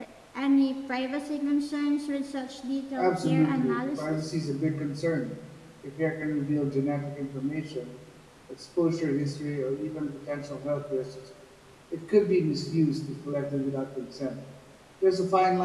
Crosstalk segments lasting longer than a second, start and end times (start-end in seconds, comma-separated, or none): 3.0-4.2